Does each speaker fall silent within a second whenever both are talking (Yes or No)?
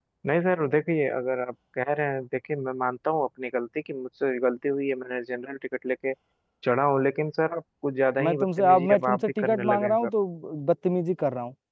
No